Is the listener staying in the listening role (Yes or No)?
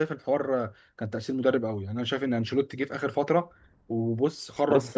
No